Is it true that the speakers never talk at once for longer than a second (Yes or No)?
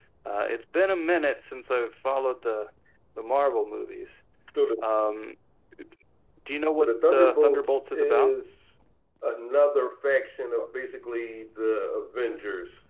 No